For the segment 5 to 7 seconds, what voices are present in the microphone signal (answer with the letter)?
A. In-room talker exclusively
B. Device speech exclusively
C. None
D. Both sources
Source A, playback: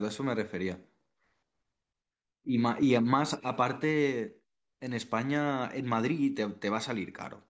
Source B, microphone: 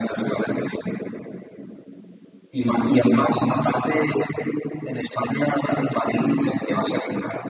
B